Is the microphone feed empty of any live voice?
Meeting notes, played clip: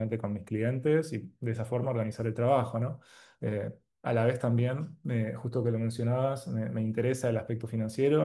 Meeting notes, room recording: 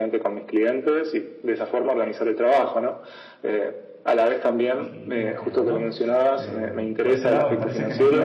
No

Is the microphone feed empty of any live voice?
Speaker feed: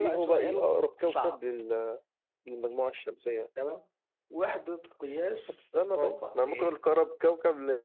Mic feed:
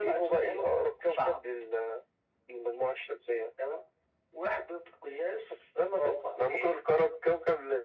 Yes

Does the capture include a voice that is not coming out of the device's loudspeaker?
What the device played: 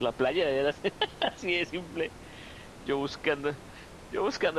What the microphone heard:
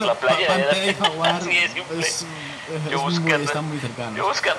Yes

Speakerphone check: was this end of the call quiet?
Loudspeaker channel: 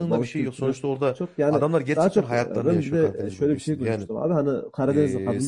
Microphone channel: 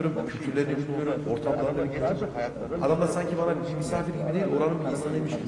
No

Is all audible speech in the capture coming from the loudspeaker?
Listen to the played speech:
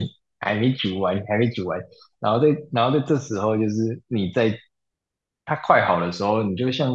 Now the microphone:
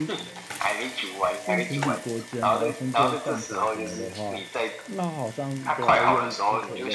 No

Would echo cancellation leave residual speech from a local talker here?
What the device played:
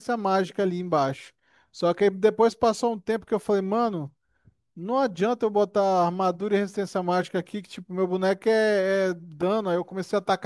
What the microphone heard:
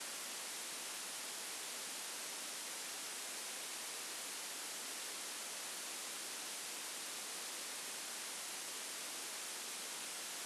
No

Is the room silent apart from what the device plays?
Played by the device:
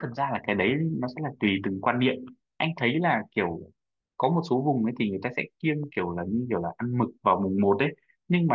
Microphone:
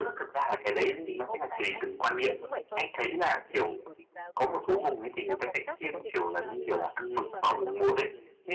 No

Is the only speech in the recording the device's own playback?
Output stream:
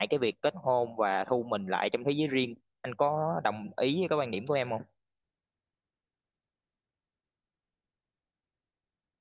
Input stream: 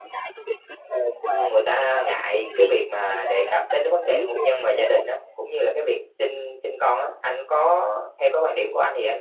No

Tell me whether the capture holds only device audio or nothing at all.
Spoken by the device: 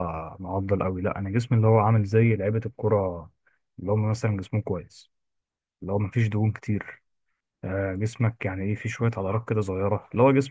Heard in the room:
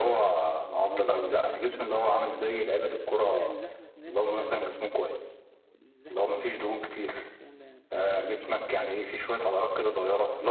No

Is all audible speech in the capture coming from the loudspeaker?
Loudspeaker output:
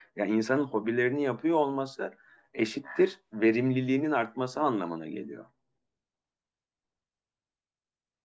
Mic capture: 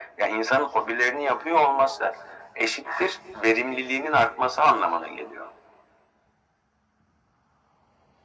Yes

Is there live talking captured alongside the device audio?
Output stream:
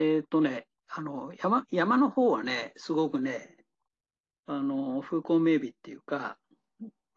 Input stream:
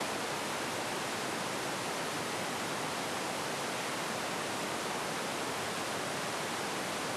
No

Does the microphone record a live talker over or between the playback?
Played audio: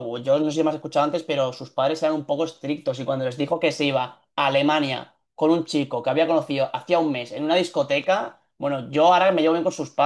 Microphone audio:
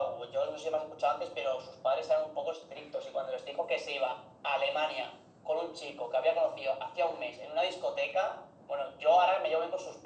No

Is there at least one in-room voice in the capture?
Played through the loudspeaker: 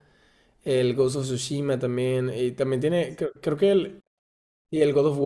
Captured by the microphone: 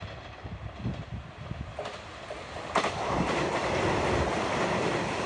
No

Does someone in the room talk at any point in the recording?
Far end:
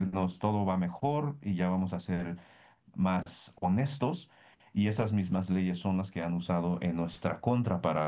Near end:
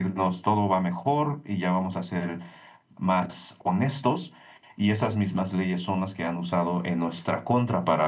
No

